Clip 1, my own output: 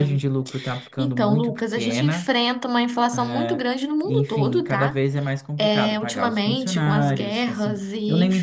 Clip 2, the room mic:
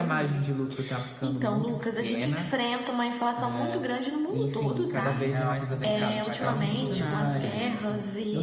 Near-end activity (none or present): present